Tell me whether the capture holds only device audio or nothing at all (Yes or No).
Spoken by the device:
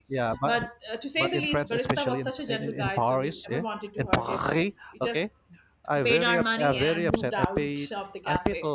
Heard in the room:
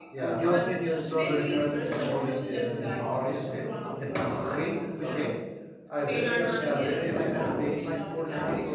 No